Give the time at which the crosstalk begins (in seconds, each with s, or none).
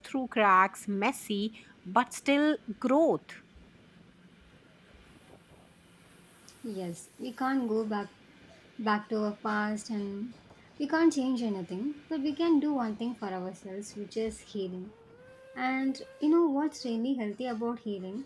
none